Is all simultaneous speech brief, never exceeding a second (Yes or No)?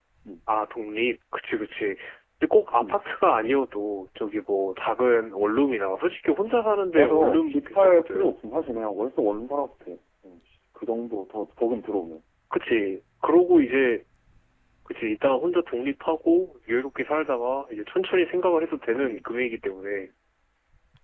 No